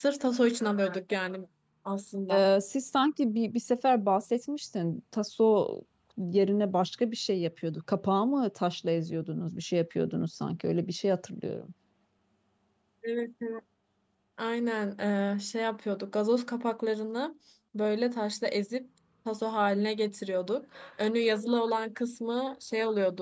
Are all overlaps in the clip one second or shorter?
Yes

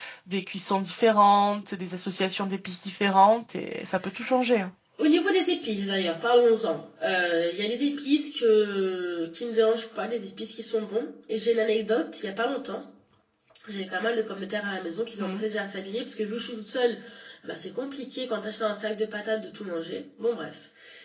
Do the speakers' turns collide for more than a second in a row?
No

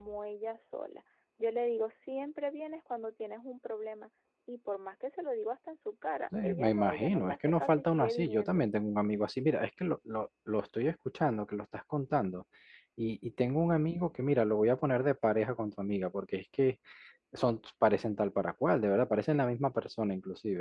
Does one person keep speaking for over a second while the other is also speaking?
Yes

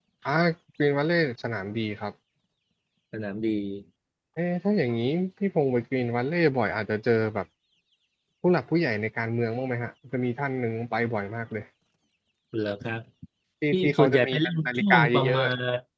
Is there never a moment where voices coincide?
No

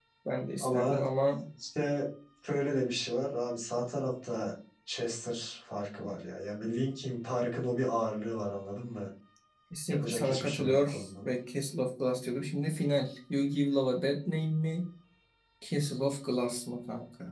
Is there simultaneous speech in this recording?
Yes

